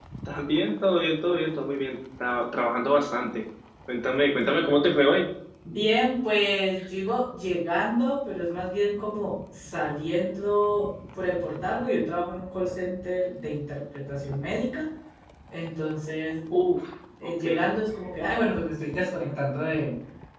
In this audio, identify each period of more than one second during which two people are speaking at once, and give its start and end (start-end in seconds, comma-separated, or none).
none